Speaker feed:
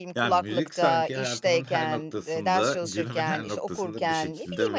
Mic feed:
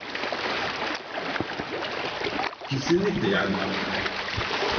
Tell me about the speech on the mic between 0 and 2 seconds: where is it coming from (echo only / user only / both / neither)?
neither